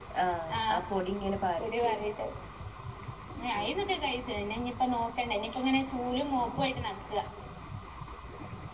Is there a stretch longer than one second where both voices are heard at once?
No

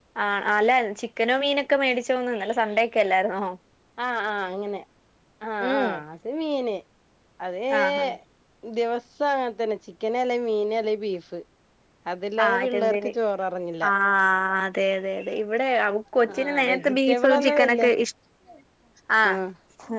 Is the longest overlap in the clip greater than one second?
Yes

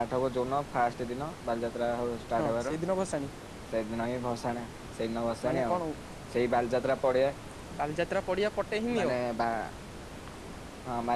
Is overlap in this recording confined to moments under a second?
Yes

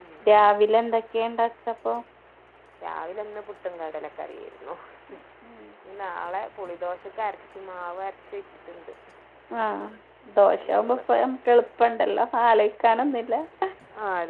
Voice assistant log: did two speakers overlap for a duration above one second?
No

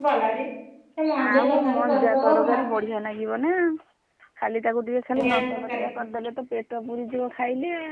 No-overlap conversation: No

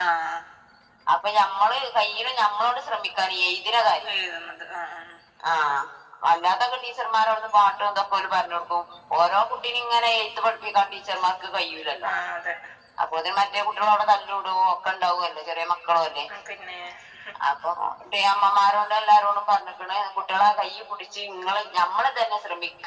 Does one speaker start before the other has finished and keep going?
No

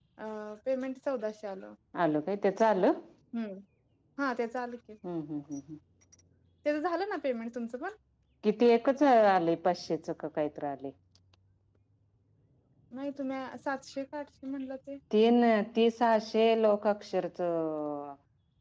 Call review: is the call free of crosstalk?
Yes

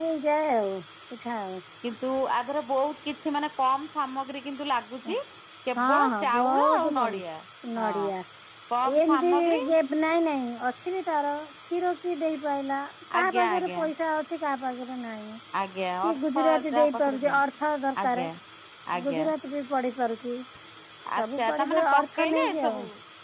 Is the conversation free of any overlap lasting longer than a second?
No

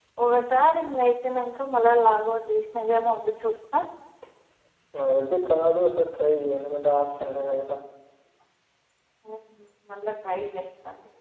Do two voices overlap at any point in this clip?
No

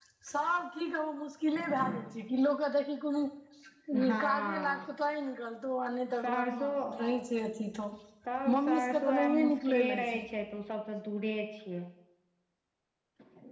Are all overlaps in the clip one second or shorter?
No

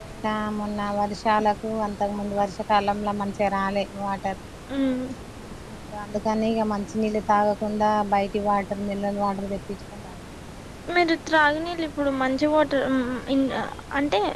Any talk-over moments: No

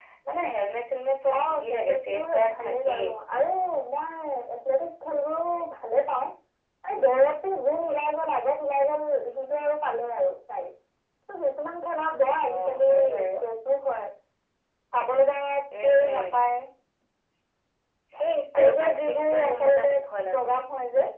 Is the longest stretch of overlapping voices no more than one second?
No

